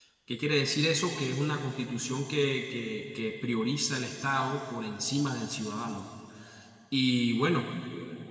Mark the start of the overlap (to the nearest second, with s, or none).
none